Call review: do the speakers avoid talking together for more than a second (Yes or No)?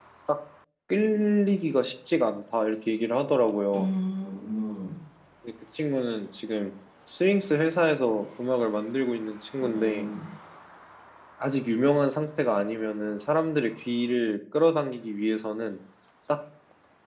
Yes